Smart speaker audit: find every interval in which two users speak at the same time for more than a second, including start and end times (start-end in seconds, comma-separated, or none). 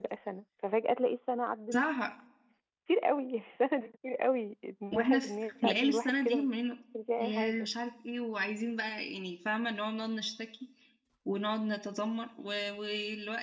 4.9-6.5